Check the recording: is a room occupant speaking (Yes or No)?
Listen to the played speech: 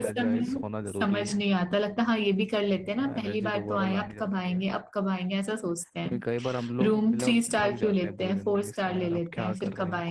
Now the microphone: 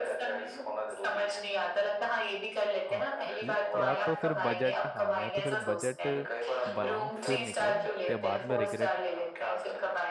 Yes